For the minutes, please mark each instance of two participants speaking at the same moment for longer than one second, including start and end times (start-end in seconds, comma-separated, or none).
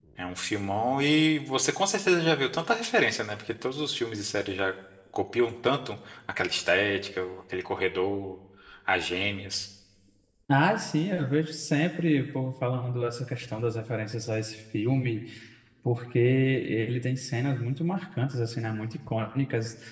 none